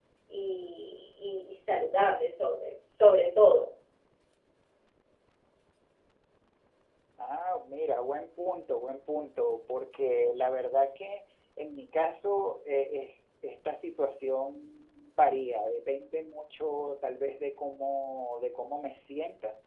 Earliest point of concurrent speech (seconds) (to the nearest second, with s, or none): none